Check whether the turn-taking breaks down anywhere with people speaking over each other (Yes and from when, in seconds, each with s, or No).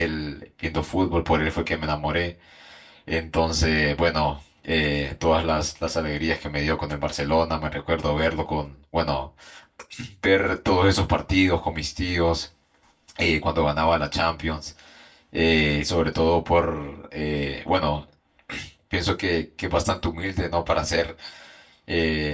No